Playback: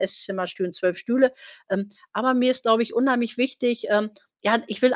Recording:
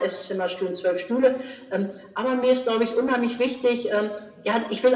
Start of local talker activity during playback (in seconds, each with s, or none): none